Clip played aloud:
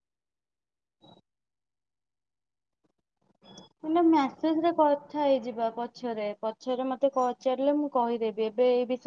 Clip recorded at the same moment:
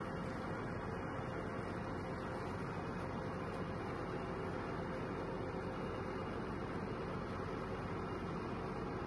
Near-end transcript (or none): none